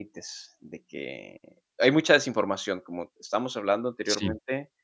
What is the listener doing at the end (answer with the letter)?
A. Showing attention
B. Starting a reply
A